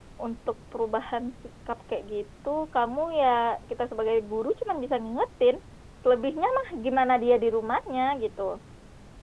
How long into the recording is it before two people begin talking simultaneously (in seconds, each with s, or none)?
none